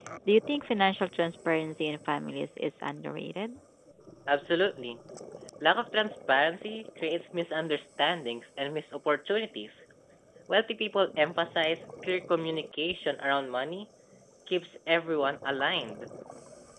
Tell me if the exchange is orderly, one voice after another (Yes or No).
Yes